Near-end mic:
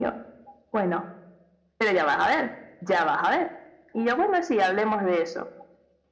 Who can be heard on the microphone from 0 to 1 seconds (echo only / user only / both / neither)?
echo only